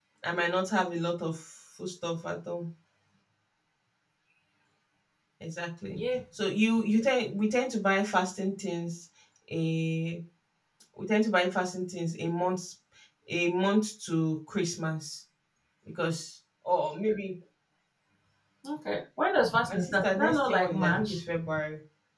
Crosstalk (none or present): present